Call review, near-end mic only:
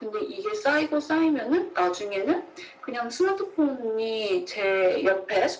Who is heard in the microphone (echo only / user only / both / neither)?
echo only